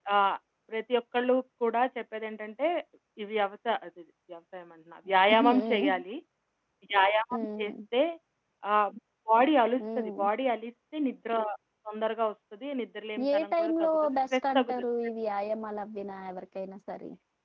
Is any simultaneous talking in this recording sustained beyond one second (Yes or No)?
Yes